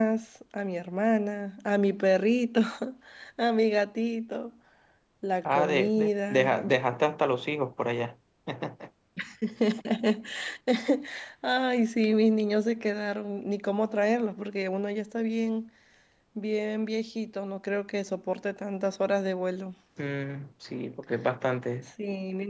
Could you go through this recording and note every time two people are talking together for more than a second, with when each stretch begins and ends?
5.5-6.8

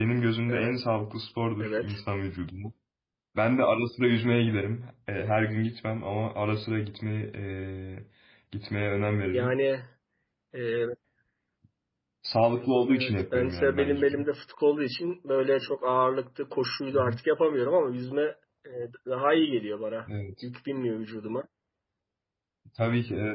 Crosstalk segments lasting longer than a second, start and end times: 12.9-14.2

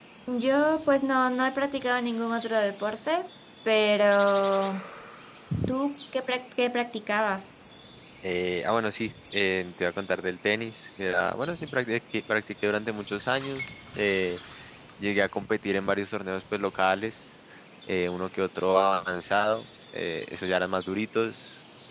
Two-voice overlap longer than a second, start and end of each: none

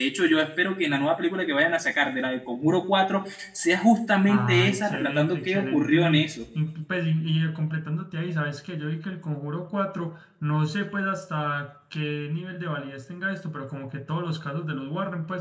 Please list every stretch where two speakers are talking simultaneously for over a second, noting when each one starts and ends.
4.3-6.3

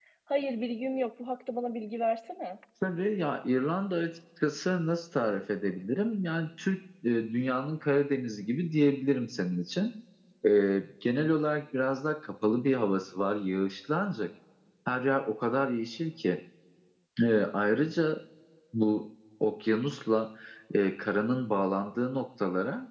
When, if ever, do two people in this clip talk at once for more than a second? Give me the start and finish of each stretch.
none

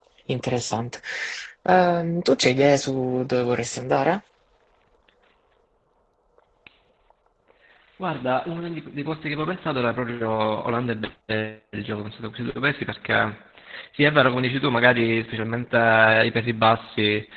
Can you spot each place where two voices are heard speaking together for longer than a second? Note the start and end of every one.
none

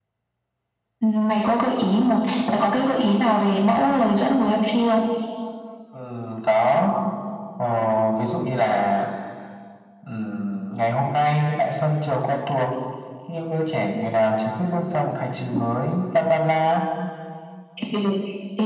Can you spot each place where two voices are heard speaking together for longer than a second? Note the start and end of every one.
none

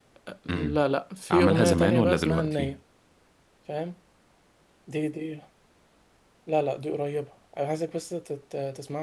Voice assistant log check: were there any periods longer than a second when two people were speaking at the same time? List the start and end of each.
1.3-2.8

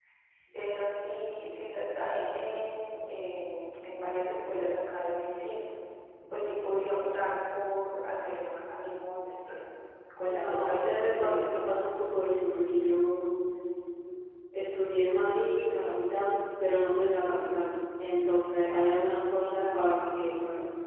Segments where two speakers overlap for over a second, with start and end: 10.2-11.5

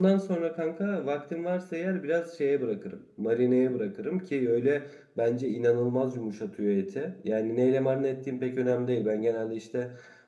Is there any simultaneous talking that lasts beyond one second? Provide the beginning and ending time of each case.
none

